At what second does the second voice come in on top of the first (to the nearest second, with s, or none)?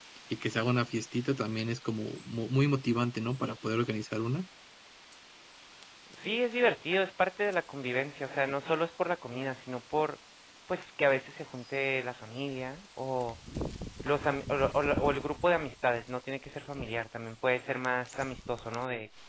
none